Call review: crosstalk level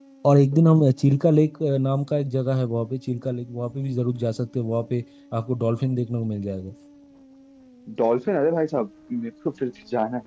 none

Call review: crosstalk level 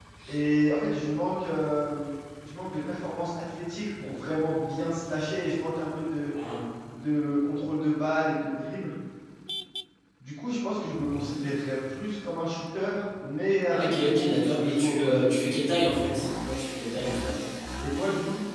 present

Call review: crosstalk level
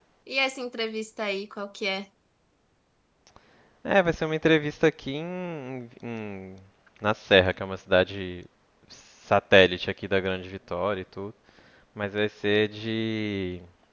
none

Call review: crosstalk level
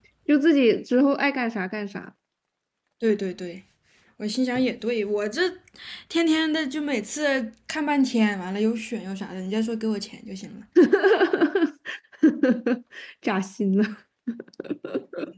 none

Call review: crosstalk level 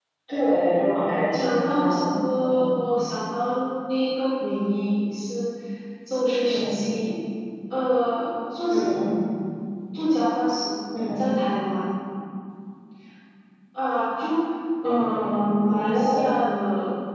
present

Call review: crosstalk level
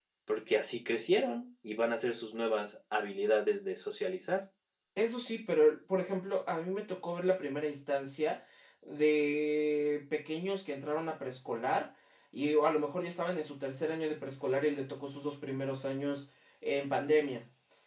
none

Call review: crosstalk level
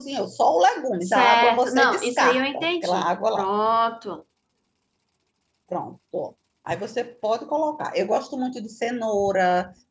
present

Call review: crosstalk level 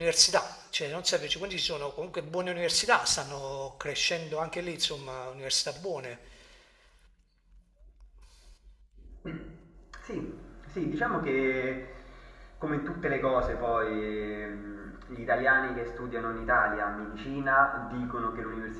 none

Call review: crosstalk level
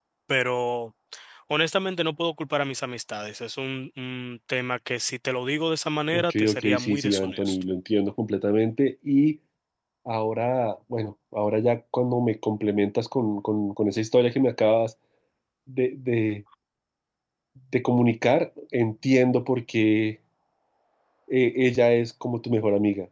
present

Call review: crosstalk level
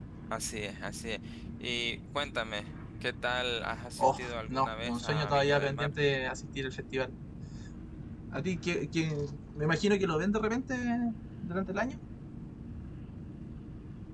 present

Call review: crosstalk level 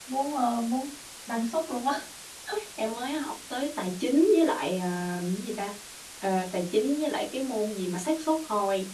none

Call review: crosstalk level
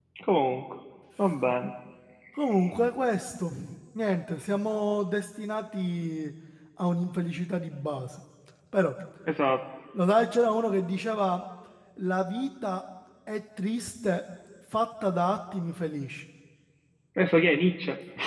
none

